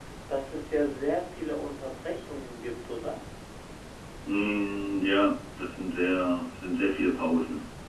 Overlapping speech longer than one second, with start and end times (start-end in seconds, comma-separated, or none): none